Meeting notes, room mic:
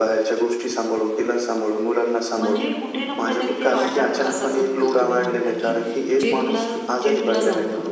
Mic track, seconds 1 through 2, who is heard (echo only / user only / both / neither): echo only